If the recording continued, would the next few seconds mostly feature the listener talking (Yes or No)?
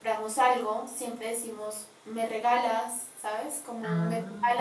No